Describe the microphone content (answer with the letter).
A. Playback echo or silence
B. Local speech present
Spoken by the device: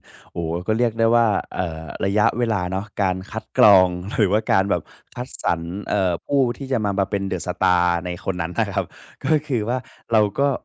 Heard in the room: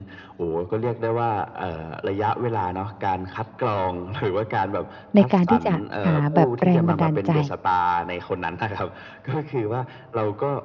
B